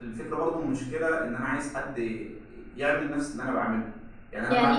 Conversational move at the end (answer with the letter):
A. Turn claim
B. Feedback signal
B